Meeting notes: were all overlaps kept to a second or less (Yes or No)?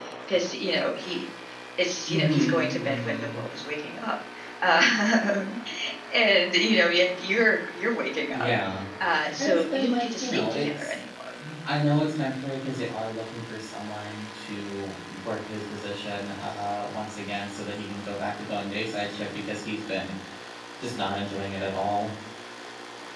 No